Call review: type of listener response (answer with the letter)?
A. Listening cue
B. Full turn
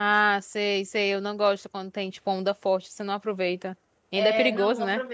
B